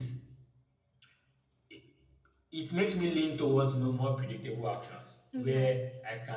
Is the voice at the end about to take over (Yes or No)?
No